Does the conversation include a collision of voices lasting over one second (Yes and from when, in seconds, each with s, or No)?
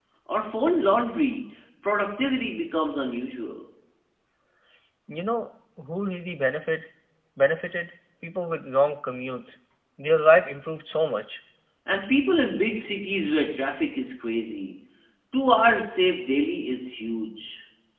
No